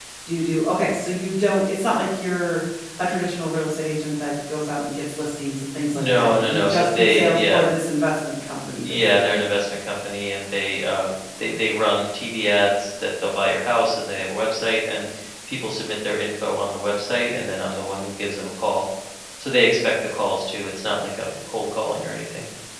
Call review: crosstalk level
present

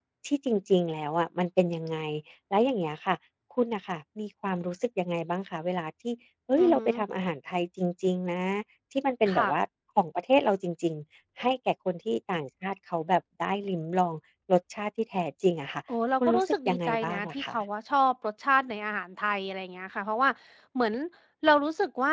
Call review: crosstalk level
present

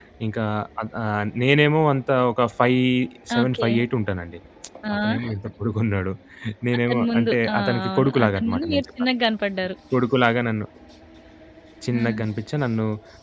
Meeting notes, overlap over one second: present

